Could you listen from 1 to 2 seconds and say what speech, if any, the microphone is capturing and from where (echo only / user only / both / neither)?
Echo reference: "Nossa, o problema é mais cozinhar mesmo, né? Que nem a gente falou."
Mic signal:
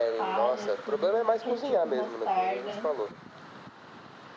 both